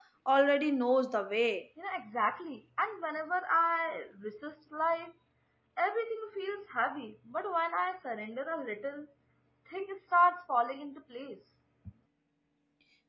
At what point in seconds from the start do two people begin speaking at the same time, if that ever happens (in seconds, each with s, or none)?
none